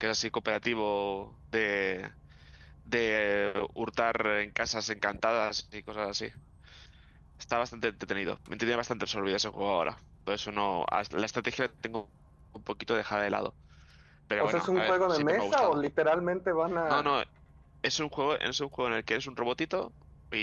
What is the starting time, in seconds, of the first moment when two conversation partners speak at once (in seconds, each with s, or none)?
14.4 s